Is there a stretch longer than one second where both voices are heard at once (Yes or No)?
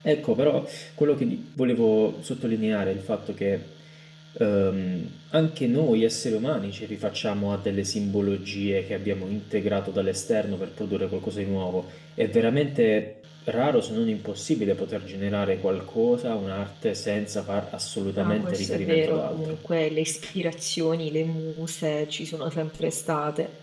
Yes